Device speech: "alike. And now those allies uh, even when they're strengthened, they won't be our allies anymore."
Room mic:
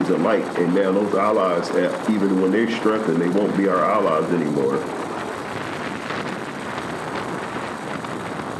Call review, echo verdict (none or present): present